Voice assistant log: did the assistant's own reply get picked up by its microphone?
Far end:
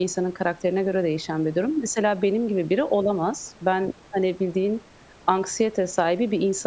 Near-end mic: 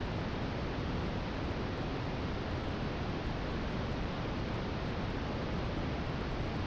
No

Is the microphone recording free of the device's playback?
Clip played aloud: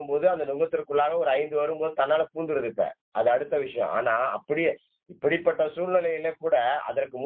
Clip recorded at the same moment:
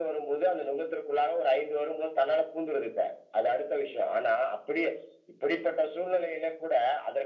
No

